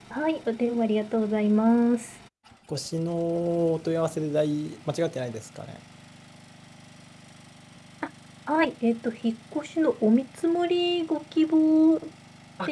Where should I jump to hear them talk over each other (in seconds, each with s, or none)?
none